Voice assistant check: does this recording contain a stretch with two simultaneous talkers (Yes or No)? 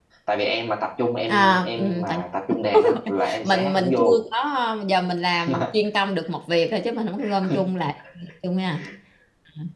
Yes